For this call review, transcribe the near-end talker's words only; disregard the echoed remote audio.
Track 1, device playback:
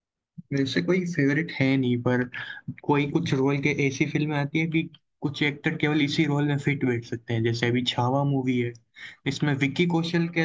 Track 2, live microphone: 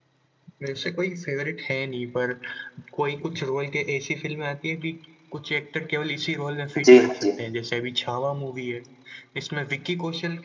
जी हाँ जी

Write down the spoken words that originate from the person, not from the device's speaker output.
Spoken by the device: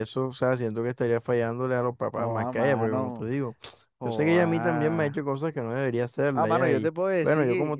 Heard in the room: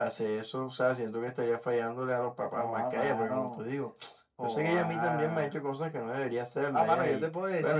none

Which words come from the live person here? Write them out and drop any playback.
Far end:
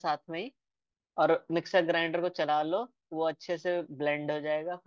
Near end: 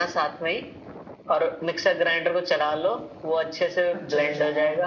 अच्छा अच्छा हाँ

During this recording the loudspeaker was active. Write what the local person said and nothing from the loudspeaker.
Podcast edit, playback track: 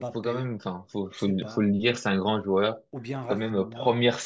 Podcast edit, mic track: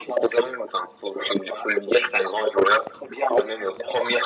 none

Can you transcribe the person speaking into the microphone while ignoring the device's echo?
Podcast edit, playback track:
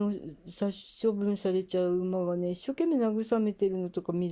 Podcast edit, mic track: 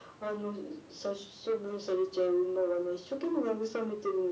none

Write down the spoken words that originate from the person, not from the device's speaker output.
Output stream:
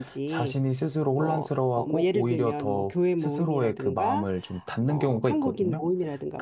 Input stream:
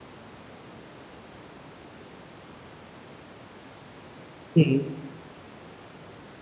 네.

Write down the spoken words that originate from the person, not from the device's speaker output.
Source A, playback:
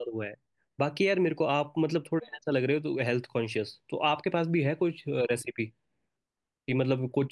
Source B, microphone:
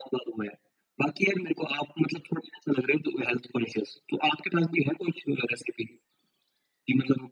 none

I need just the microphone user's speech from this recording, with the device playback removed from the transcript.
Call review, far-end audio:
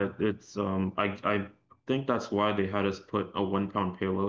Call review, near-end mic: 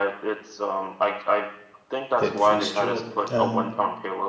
that first job. Um,

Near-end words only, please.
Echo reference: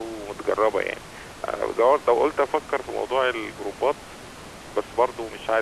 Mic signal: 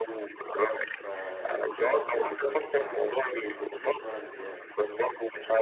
ففي عندي حد ممكن يساعدك في الحتة دي ما تشغلش بالك بيها

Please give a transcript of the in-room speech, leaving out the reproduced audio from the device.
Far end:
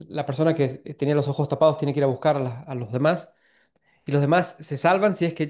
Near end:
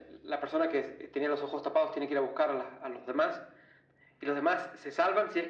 none

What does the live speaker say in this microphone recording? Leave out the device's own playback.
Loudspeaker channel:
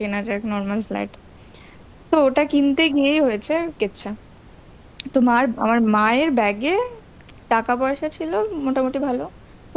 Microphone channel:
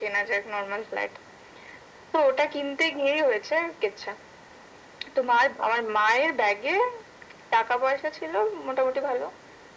none

